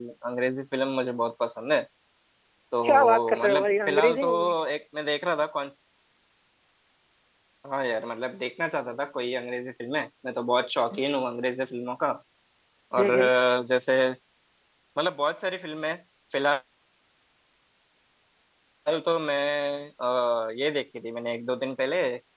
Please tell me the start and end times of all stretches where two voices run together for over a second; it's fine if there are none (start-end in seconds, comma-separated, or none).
2.8-4.5